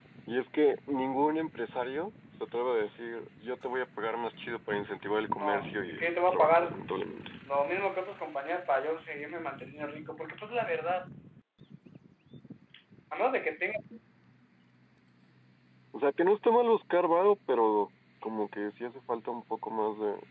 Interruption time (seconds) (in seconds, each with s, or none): 5.3 s